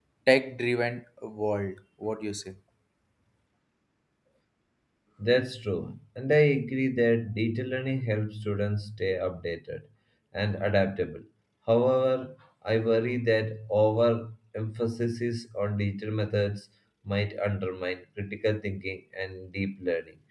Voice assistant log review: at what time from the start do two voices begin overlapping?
none

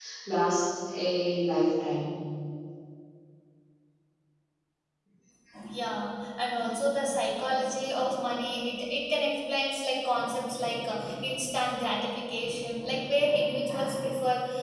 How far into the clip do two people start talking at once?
none

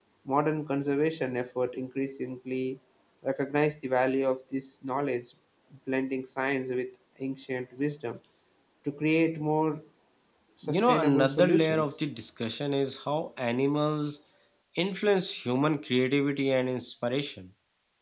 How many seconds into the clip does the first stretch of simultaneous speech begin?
10.6 s

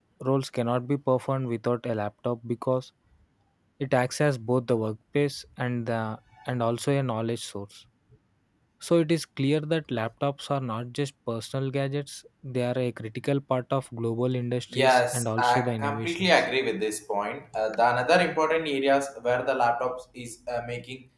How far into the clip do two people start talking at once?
14.7 s

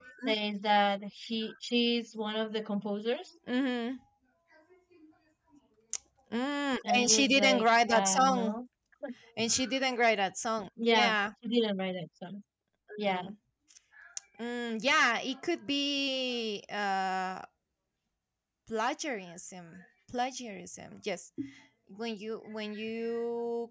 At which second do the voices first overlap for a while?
6.9 s

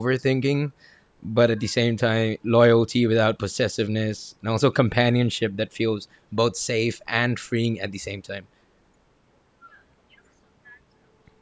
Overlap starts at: none

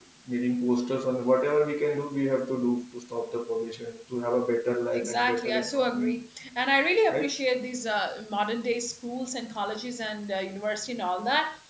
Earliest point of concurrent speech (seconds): 4.9 s

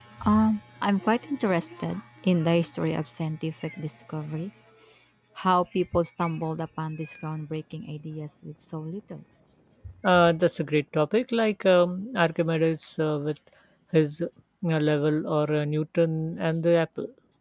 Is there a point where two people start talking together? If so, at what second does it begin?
none

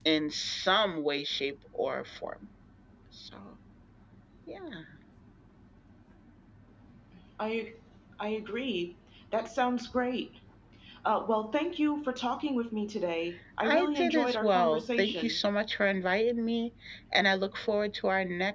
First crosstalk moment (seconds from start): 13.6 s

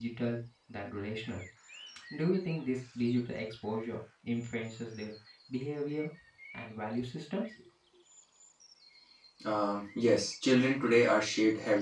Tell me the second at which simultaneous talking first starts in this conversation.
none

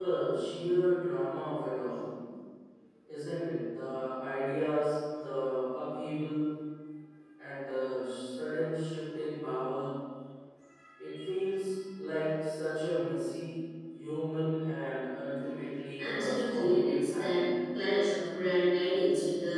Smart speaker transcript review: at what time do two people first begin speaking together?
16.0 s

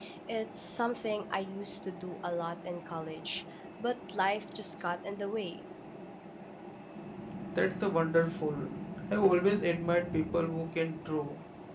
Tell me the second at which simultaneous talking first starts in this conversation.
none

